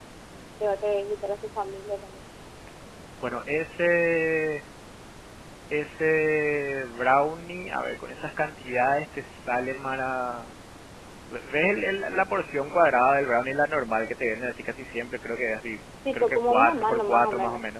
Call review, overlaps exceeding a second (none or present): present